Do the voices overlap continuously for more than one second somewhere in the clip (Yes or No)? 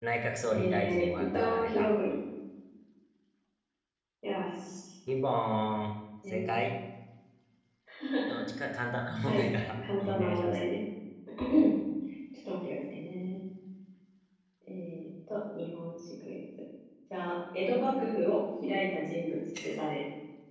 Yes